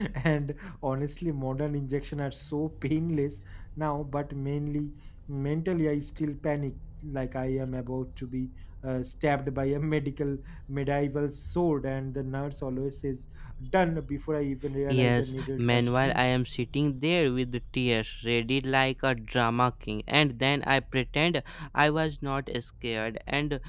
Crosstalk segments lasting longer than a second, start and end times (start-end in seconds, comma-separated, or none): 14.9-16.2